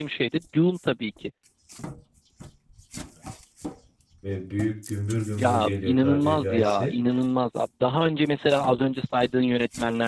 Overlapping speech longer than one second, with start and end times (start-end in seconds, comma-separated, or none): 5.4-6.9